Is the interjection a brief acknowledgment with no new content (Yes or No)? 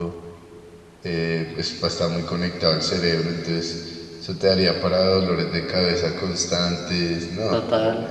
No